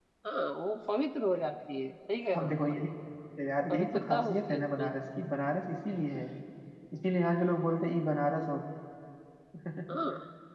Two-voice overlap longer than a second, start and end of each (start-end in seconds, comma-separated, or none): 3.7-4.9